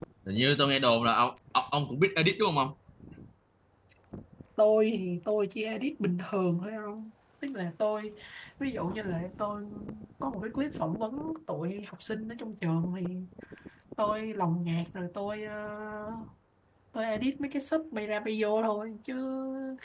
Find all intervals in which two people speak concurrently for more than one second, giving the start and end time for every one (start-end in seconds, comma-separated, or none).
none